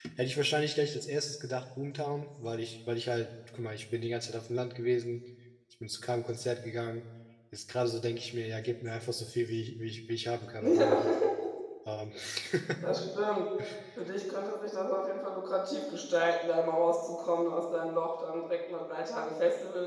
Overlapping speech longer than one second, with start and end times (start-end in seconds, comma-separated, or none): none